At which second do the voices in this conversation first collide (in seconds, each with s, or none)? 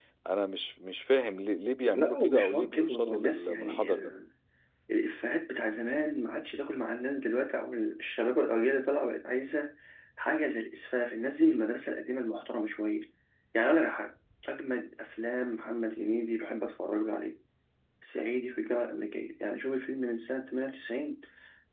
1.9 s